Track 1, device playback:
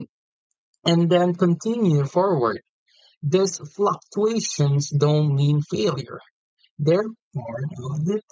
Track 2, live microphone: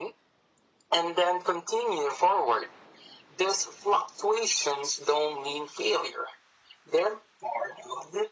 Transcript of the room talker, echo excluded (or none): none